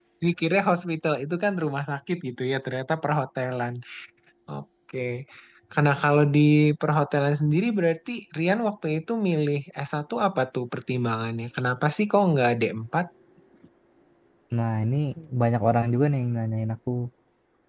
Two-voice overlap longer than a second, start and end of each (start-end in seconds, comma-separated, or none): none